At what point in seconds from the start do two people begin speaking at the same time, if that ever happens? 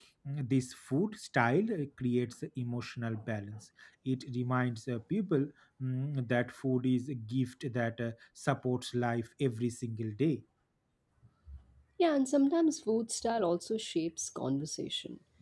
none

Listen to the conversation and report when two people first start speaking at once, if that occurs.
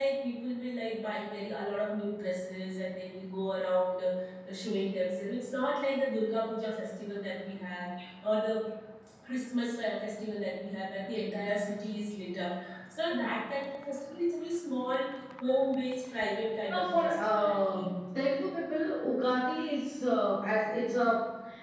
16.6 s

